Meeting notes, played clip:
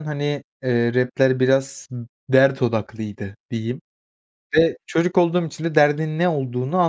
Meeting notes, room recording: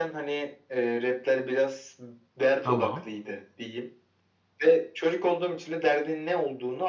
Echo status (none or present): present